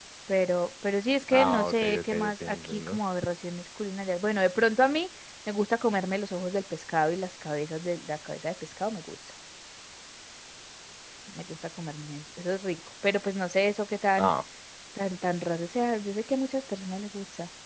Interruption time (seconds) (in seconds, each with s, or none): 1.3 s